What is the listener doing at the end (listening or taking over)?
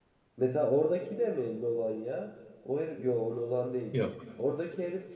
listening